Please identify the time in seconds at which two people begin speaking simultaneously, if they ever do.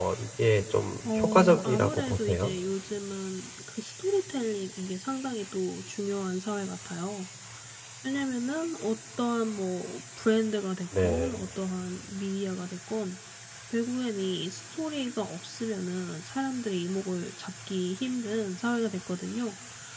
1.0 s

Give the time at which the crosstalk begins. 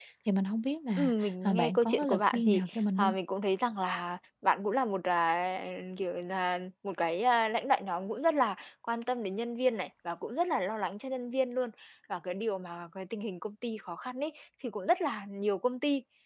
1.0 s

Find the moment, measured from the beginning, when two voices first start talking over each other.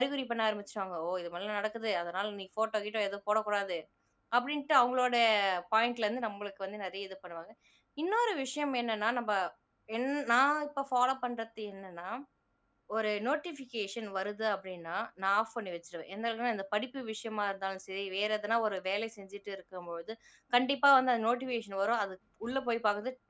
none

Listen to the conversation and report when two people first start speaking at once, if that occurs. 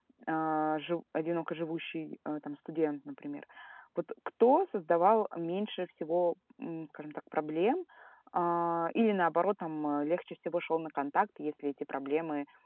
none

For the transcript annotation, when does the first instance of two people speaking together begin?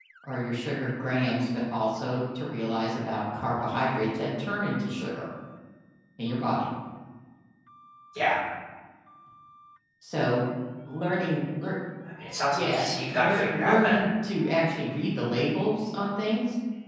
12.5 s

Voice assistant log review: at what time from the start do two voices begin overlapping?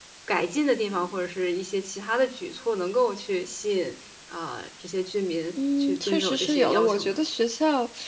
5.8 s

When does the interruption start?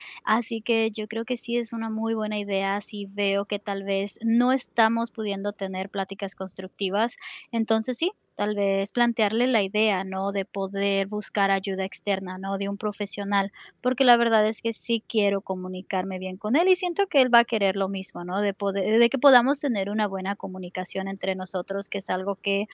none

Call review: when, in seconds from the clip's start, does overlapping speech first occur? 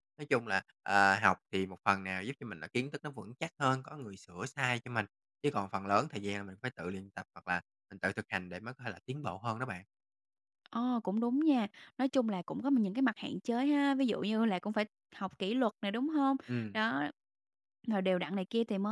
none

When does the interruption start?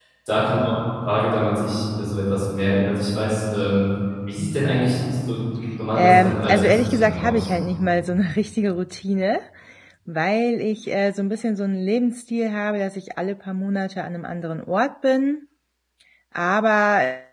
5.9 s

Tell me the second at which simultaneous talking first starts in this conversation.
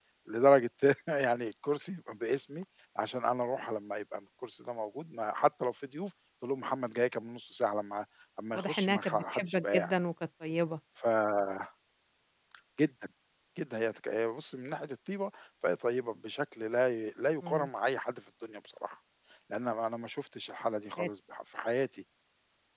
8.5 s

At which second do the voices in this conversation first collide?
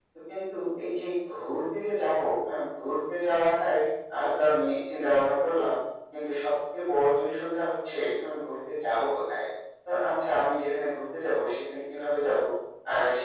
none

